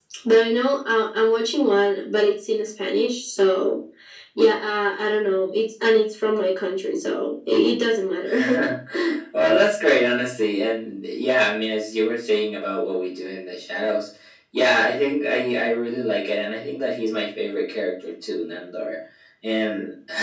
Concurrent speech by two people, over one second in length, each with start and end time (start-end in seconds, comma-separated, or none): none